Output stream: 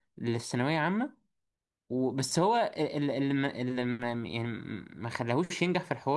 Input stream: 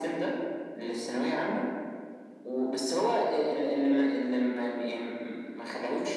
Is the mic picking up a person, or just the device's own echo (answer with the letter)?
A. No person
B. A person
A